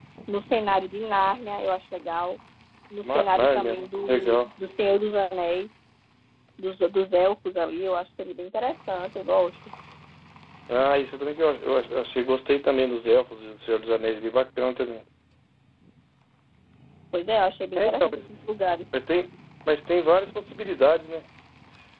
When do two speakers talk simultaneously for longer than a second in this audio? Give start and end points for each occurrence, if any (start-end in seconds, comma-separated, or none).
3.0-4.5